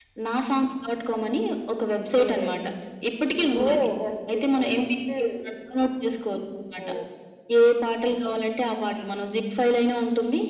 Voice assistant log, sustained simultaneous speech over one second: none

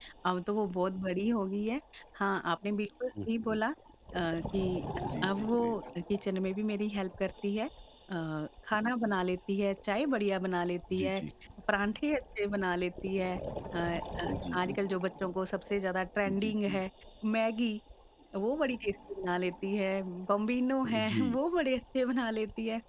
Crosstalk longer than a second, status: none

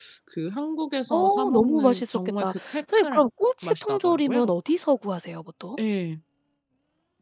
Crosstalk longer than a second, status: present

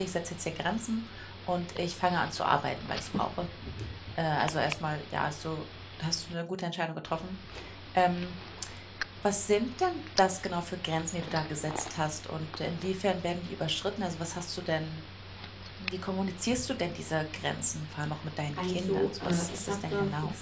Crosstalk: present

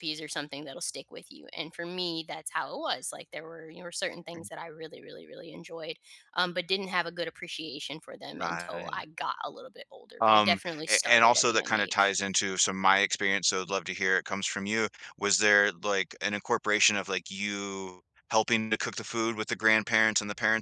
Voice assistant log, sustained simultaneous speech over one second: present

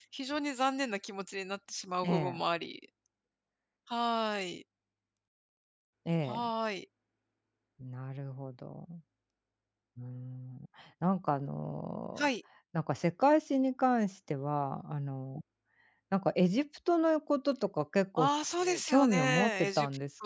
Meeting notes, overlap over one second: present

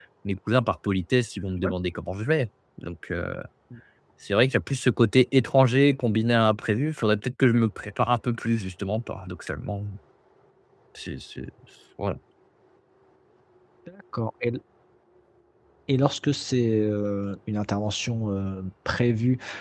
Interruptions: none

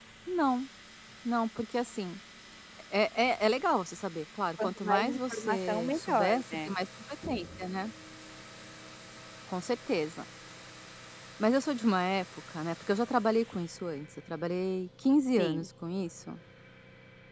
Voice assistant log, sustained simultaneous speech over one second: present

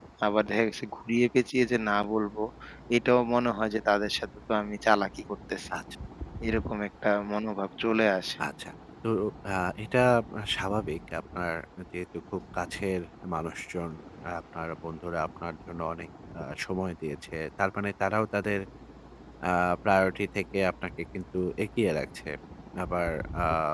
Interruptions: none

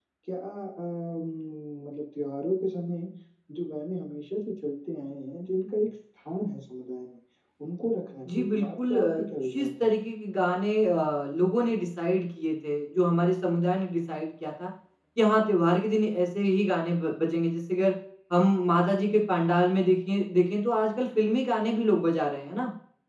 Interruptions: present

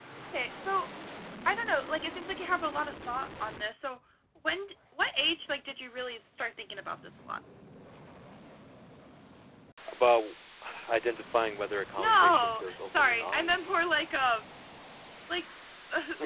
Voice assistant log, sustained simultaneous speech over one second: present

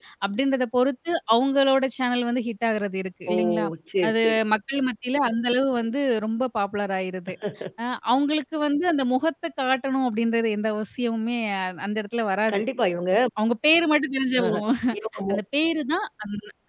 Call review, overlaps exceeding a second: none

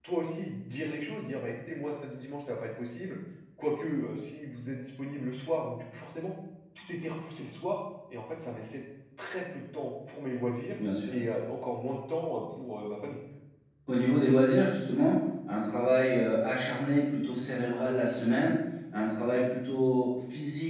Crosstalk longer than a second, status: none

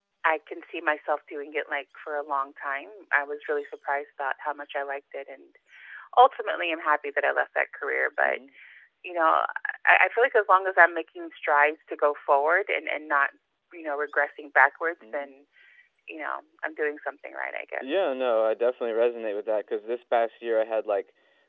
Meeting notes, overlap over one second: none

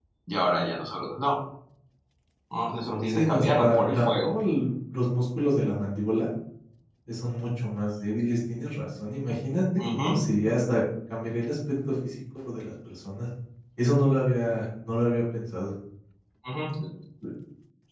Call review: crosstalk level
present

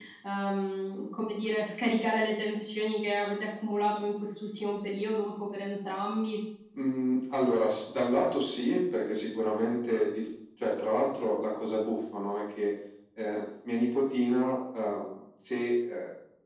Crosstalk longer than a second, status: none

